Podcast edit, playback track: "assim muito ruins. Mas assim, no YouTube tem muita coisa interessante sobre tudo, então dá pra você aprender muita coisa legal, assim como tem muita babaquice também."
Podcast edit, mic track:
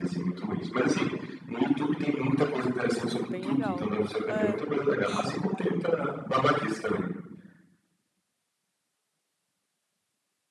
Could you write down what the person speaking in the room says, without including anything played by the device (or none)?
É bem legal. É. E